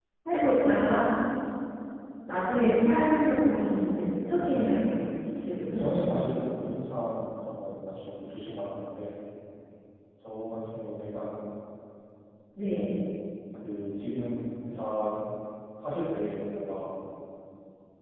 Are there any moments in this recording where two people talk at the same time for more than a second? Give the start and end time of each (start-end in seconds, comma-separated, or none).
none